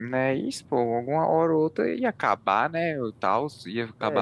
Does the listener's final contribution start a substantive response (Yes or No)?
Yes